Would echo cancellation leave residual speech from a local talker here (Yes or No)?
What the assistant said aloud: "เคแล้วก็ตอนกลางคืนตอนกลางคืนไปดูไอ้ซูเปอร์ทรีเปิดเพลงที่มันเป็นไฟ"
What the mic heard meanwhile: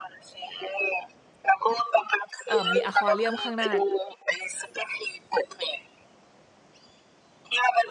Yes